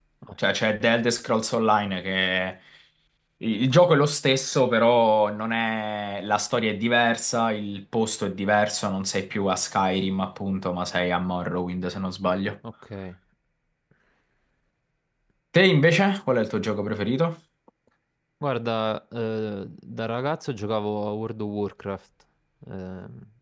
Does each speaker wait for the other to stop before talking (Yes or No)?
Yes